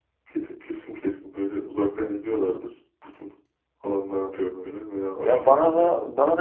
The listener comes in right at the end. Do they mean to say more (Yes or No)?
Yes